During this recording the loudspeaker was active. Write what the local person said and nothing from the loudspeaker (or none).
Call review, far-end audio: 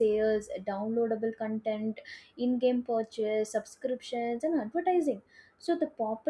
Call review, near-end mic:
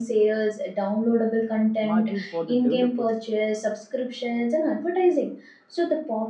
margins for the developers